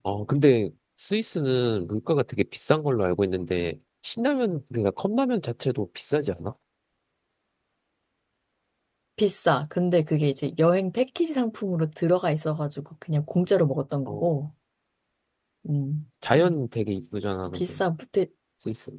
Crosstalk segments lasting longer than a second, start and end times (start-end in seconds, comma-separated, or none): none